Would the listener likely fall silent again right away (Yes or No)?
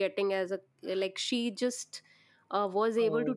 Yes